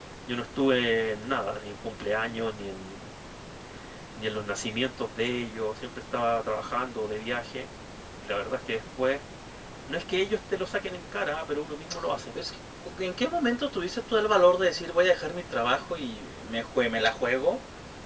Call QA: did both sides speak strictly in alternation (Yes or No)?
Yes